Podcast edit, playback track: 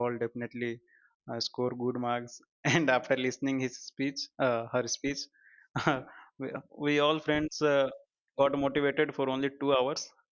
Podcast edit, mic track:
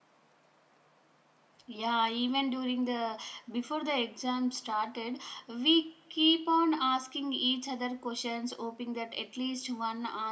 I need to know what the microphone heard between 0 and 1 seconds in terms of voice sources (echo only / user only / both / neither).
neither